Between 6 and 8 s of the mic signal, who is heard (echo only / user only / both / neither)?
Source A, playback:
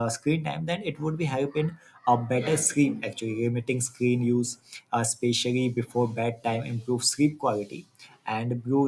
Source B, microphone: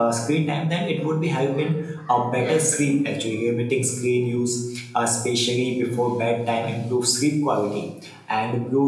echo only